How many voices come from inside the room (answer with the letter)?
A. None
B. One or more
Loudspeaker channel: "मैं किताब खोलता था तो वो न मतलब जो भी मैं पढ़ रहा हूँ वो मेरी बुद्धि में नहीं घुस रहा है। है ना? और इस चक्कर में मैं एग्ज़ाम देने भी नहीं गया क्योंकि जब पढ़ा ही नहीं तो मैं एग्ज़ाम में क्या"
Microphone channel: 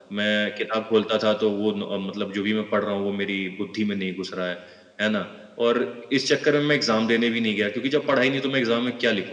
A